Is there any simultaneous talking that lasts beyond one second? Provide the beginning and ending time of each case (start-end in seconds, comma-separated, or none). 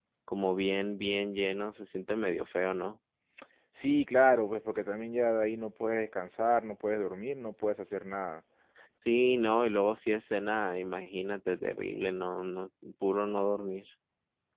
none